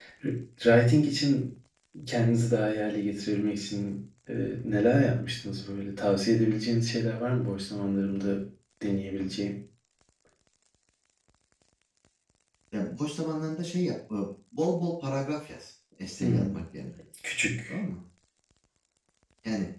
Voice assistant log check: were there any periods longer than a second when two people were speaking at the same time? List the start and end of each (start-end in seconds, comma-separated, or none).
none